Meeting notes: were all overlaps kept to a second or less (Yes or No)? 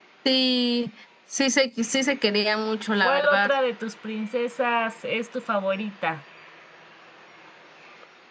Yes